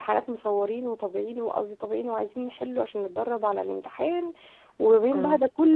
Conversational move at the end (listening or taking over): listening